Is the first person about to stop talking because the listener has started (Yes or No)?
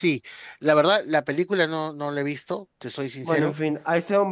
Yes